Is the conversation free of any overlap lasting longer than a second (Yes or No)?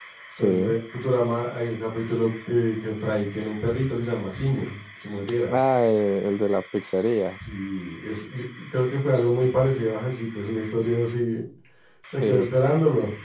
Yes